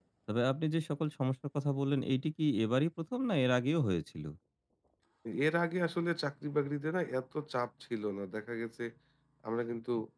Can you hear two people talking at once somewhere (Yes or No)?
No